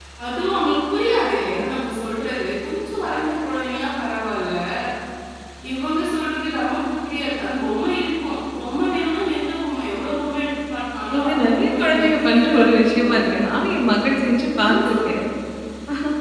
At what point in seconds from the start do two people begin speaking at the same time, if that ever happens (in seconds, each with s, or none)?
11.2 s